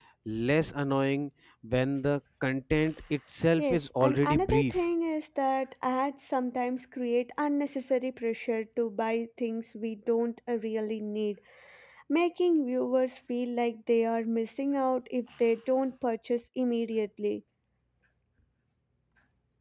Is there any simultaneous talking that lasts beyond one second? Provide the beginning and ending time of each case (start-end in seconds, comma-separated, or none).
3.6-4.8